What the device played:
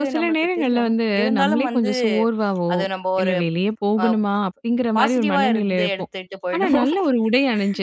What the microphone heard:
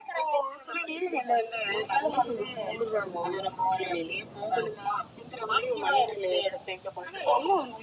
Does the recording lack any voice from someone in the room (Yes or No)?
Yes